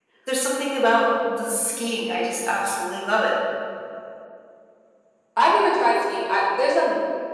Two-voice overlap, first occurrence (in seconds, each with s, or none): none